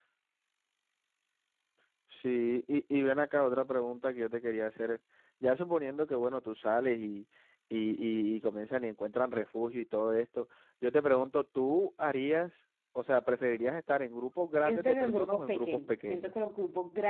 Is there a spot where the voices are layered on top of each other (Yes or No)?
Yes